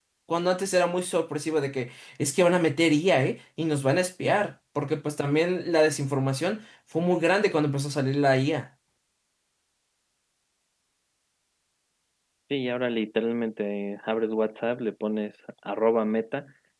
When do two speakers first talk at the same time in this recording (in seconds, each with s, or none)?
none